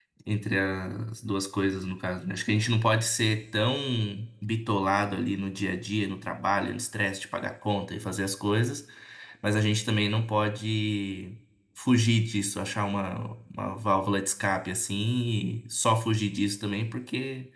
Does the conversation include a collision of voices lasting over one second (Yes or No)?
No